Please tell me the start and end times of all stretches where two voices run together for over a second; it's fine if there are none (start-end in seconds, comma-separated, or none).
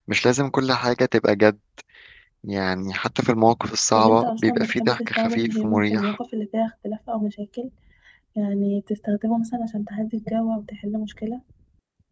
4.0-6.2